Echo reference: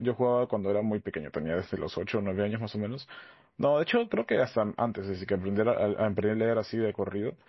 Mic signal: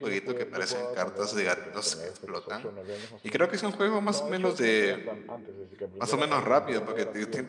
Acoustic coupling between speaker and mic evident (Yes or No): Yes